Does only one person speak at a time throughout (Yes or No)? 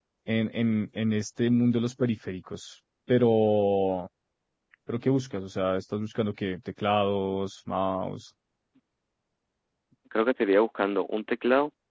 Yes